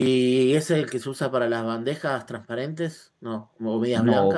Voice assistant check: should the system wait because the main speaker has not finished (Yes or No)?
No